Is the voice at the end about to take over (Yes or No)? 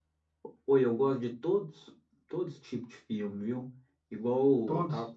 No